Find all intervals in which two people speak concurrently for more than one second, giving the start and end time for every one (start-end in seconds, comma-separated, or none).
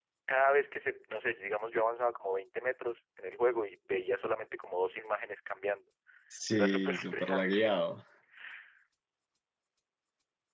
6.5-7.8